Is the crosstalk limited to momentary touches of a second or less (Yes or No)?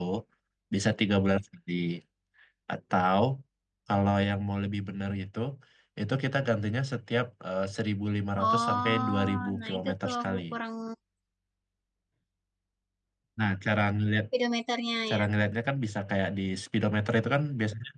No